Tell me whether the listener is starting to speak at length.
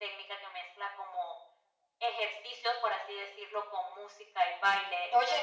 No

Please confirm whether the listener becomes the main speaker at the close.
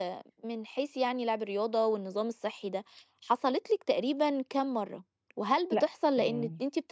No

